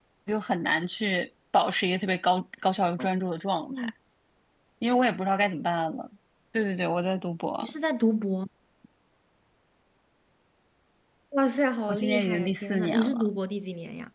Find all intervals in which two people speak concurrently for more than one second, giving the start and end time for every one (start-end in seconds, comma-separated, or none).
11.9-13.3